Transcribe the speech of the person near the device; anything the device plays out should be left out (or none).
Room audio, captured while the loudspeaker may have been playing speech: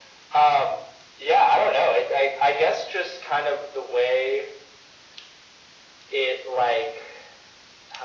none